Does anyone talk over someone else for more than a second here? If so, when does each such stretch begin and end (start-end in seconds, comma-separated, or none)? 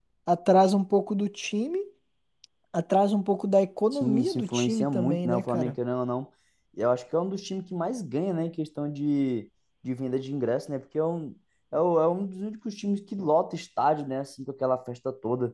3.9-5.8